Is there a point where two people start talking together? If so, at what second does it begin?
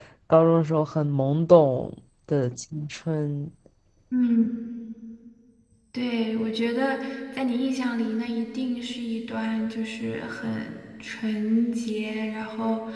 none

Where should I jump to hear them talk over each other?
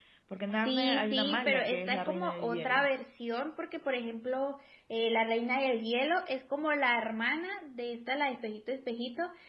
0.5 s

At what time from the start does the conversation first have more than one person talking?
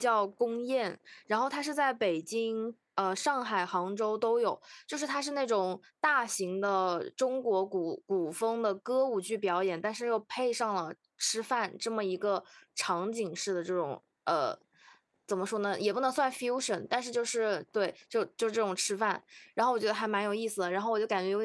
none

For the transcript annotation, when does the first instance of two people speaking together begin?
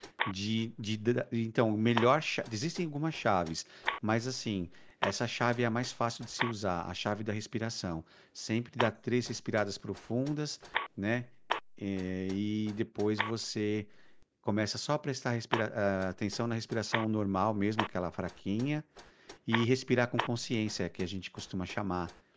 none

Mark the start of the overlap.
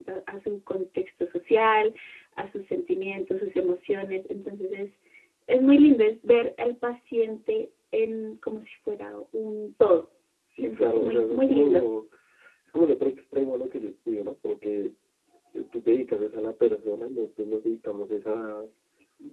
10.6 s

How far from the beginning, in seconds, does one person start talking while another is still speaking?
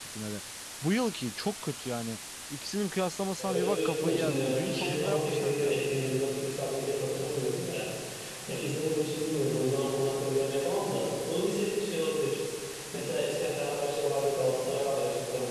3.4 s

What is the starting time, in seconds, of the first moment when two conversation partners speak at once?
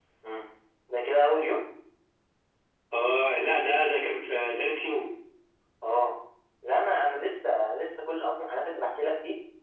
none

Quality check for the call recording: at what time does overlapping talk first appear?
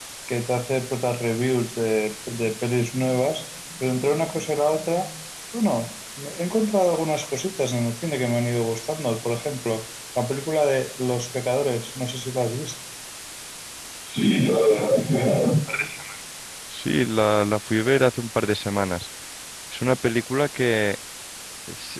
none

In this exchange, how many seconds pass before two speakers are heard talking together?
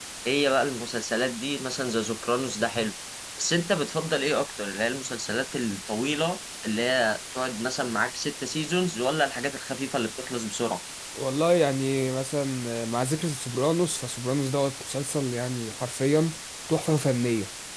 none

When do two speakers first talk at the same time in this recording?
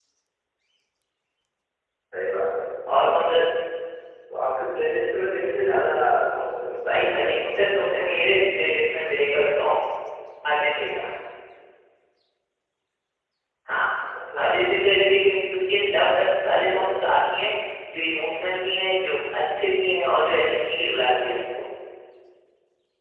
6.9 s

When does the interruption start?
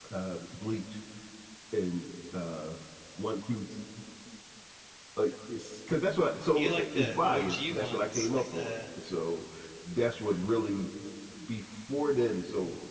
6.5 s

